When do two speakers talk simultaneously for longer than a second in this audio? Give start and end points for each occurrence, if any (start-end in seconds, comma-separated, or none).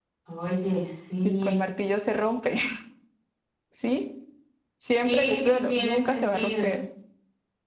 5.0-6.8